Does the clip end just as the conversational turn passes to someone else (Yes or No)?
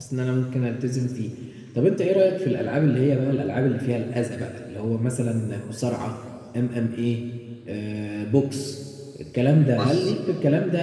No